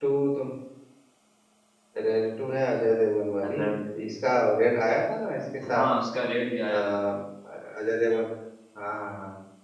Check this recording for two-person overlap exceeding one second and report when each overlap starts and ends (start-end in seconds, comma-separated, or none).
none